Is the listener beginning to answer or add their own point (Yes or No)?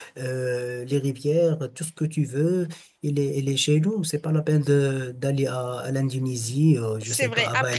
Yes